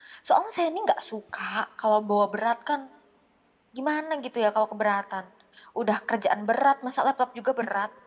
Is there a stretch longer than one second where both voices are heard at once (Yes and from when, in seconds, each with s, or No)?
No